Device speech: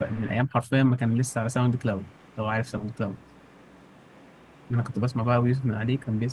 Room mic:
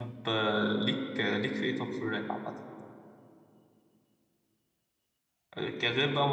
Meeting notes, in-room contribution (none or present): present